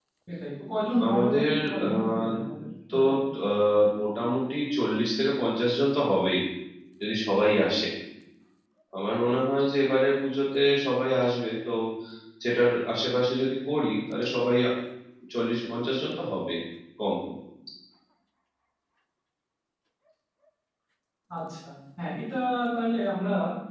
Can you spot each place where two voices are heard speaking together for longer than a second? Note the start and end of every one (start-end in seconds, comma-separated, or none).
1.1-2.3